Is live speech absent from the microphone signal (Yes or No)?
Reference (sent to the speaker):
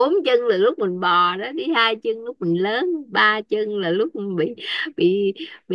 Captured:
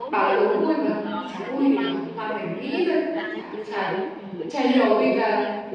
No